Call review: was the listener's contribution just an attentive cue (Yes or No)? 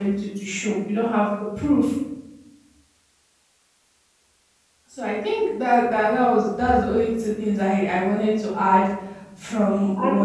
Yes